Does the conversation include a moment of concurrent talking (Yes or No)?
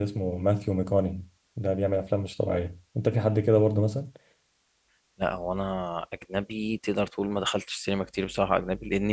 No